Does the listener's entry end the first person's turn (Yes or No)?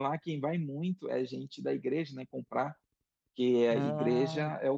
No